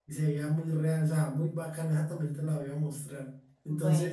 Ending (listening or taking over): listening